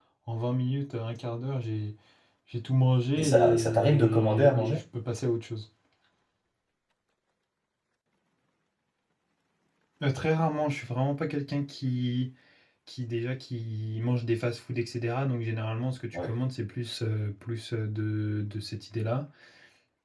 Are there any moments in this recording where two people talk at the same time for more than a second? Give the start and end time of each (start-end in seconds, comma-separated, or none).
3.2-4.8